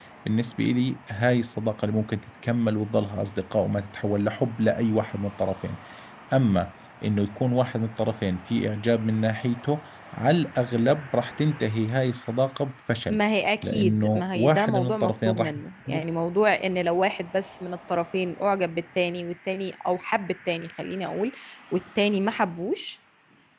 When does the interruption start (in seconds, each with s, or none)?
13.6 s